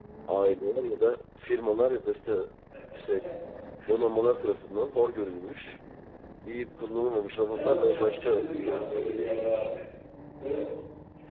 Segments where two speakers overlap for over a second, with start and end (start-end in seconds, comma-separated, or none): 7.5-9.6